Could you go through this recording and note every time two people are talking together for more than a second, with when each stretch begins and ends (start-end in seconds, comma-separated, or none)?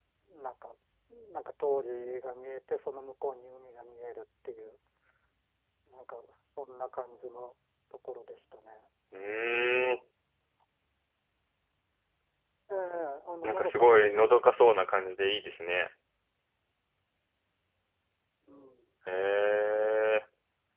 13.4-14.8